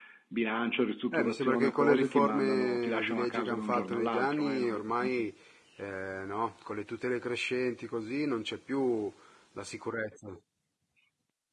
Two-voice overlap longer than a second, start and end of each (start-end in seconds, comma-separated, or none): 1.1-5.3